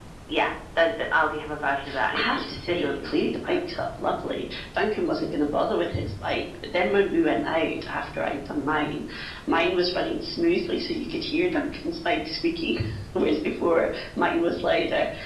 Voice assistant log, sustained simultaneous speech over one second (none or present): present